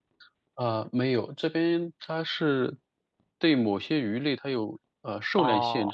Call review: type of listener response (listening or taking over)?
taking over